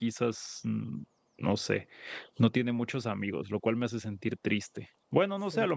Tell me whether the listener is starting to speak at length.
No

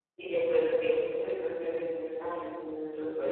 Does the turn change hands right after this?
Yes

